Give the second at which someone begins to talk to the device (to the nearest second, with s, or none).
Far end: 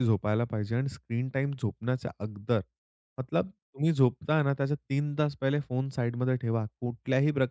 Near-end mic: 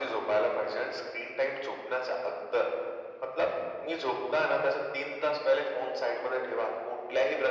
none